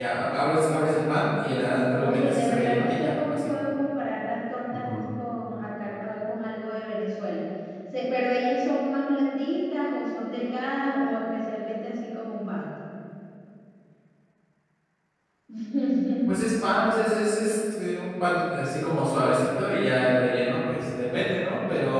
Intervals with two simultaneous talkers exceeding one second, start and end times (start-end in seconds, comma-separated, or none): 2.0-3.5